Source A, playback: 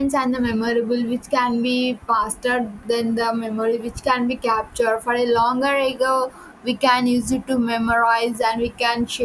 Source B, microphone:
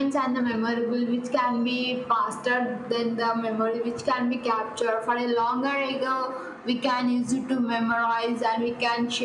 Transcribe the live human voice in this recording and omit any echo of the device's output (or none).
none